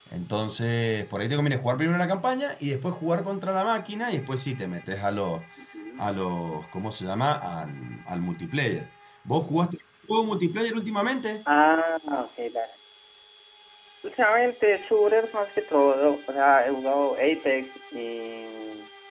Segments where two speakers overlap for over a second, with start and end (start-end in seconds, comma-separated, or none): none